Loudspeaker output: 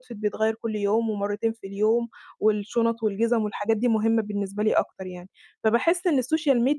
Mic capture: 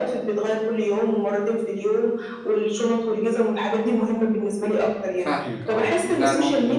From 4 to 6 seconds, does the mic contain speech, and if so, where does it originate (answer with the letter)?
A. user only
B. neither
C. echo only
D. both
D